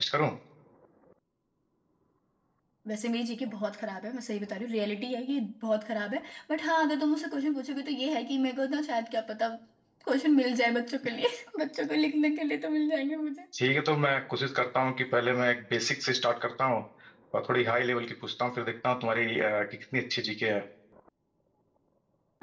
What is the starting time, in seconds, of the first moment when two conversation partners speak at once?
none

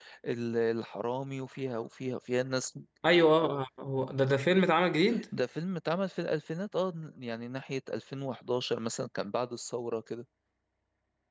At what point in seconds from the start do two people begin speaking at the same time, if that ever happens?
none

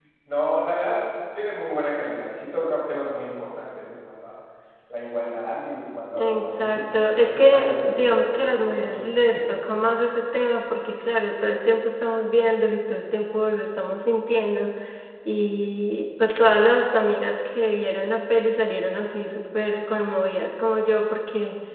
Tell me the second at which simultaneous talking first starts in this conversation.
6.2 s

